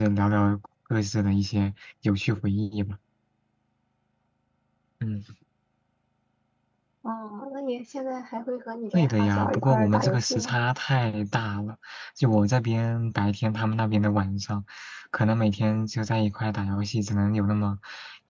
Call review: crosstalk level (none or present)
present